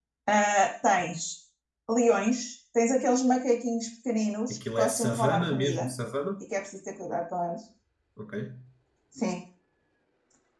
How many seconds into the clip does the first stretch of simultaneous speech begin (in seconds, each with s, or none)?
4.5 s